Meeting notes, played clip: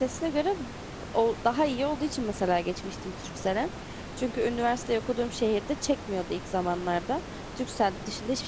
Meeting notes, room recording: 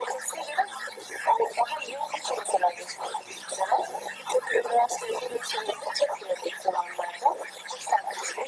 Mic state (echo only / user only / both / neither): echo only